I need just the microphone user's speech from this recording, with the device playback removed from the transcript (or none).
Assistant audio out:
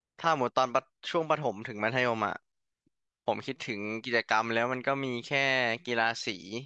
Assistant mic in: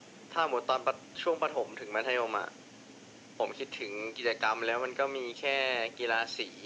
none